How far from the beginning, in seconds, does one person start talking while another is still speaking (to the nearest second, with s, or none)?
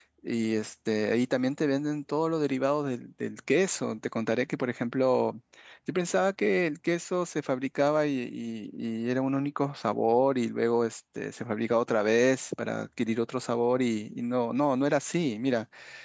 none